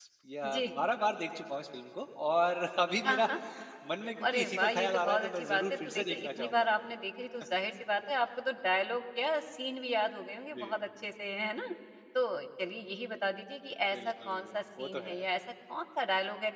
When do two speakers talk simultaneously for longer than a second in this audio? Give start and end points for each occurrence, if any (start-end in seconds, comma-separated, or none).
4.2-6.5, 13.9-15.2